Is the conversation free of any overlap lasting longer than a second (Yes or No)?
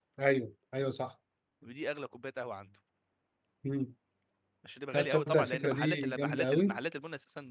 No